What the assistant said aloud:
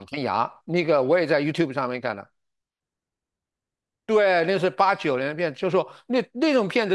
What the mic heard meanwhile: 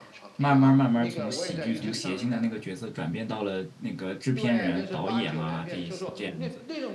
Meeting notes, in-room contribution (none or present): present